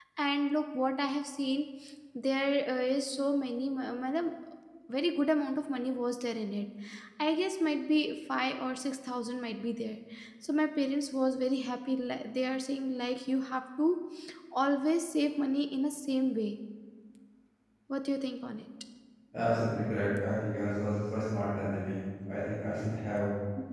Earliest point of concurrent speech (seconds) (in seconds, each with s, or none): none